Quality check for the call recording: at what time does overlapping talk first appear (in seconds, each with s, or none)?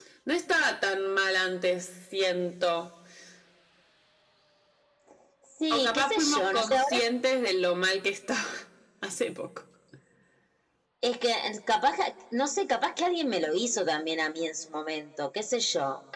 5.7 s